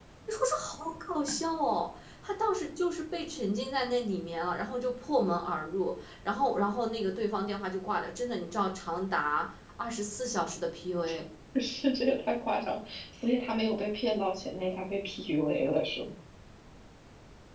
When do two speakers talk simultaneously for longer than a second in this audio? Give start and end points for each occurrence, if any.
none

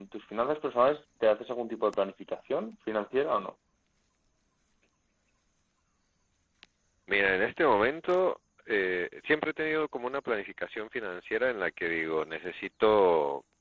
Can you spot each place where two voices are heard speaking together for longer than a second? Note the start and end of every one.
none

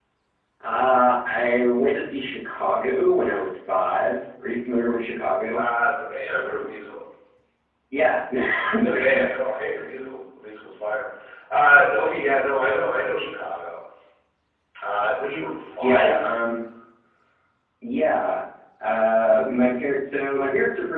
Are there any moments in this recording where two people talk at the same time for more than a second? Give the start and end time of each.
none

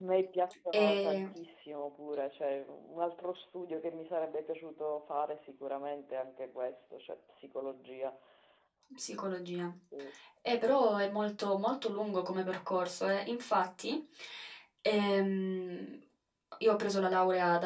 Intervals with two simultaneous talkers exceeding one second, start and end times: none

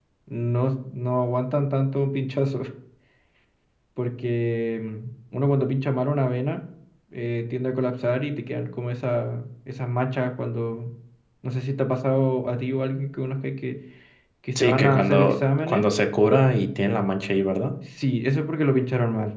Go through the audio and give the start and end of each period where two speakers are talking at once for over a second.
14.6-15.8

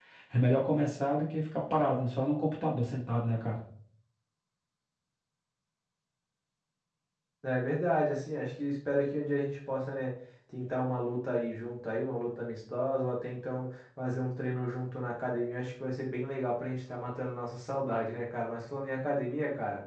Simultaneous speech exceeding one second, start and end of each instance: none

